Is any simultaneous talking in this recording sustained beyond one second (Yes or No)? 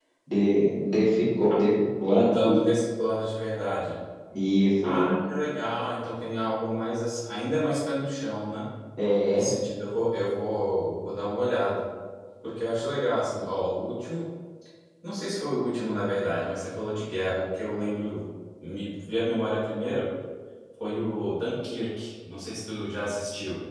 No